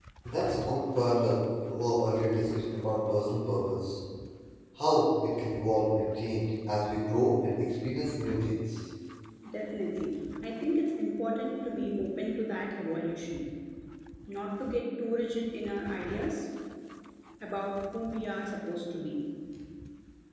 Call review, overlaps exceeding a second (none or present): none